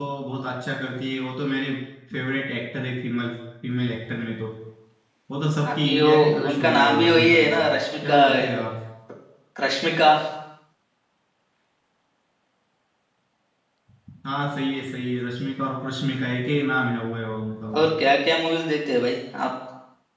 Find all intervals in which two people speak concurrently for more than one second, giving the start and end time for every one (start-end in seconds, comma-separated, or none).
5.7-7.6